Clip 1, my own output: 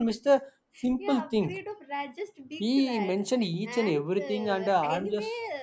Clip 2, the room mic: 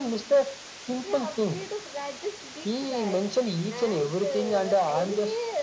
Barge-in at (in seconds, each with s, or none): none